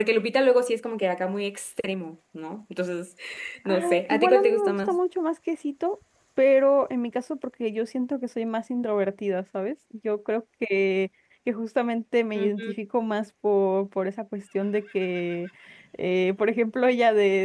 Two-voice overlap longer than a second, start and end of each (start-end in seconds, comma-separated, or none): 3.6-5.0